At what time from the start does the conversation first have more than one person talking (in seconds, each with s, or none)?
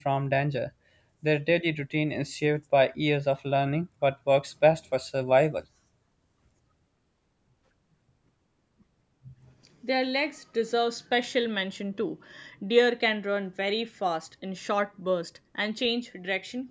none